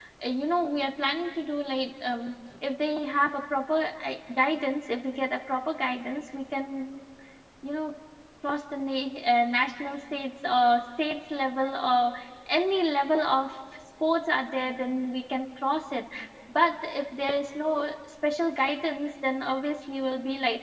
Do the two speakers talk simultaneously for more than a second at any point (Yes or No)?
No